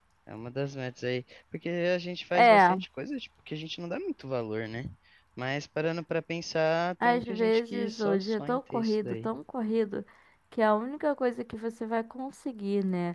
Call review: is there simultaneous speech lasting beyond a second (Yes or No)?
Yes